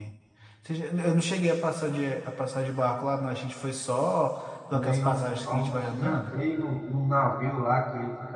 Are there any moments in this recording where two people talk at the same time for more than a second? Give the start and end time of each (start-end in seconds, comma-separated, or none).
4.7-6.2